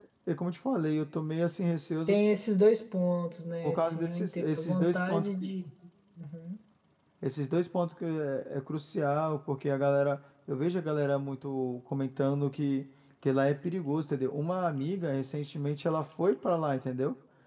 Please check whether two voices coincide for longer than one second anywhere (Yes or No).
Yes